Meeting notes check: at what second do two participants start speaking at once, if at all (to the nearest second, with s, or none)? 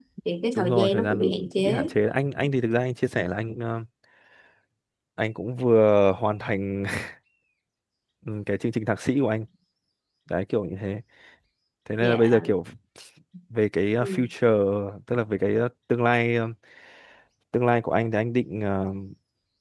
1 s